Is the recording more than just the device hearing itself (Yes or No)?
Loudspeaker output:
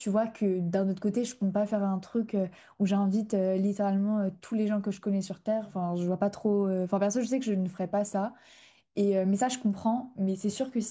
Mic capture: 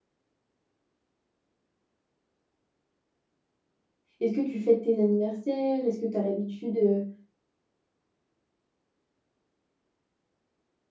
Yes